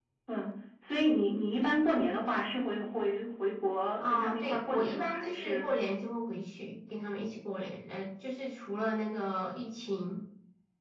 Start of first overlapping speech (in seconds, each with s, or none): 4.0 s